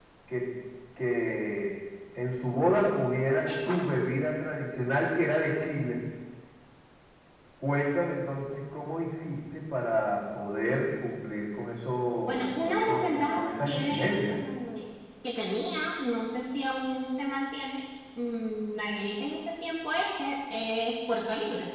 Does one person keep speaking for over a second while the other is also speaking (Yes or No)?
Yes